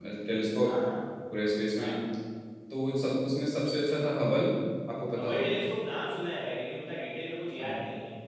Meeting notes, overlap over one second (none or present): none